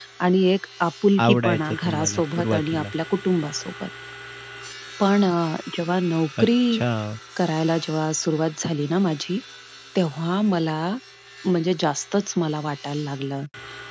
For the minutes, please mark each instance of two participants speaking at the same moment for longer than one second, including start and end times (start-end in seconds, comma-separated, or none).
1.2-2.8